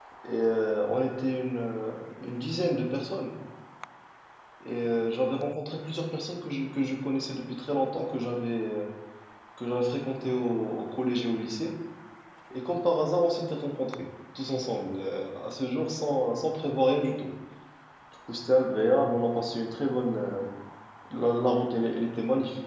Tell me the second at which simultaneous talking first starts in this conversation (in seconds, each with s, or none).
none